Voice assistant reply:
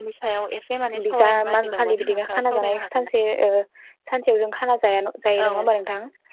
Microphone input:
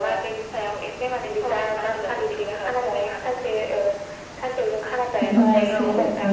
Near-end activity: present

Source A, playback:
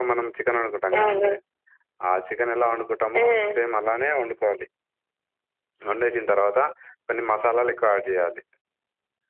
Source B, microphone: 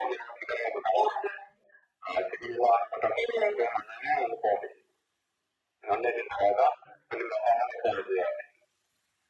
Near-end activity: none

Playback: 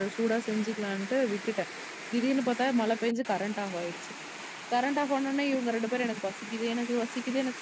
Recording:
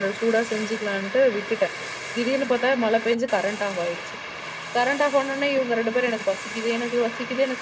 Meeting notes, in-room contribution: none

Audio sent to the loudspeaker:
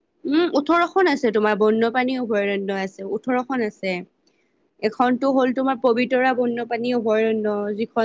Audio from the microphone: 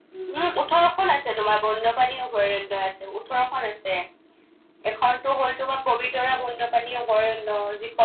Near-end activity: none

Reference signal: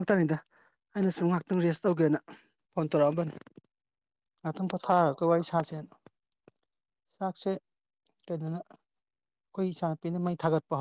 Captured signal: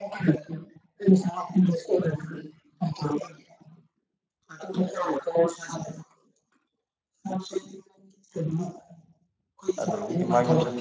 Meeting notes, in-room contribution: present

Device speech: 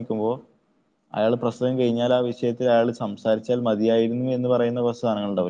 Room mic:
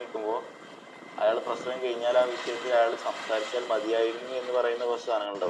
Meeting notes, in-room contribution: none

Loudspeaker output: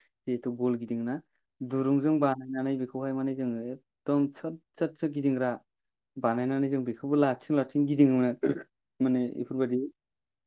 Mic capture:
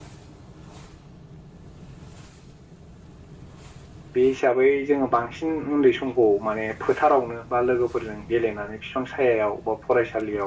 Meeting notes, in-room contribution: present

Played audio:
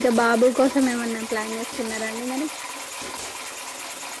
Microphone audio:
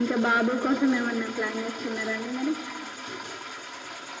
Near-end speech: none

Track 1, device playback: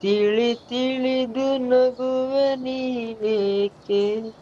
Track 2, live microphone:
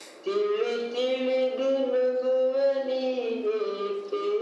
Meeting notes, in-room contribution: none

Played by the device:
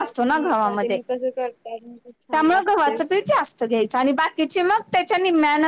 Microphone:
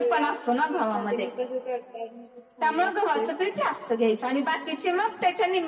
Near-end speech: none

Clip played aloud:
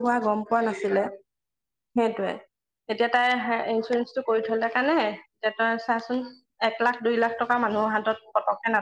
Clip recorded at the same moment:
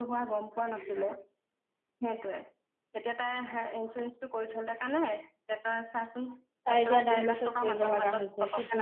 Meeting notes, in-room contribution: present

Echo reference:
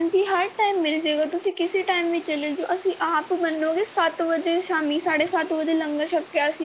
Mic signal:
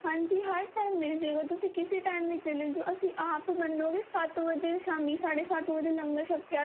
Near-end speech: none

